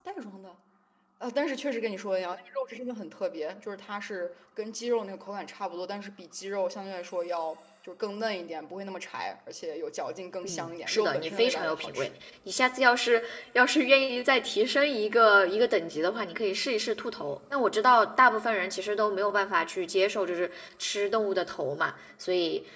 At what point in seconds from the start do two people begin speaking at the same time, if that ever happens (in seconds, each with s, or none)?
10.4 s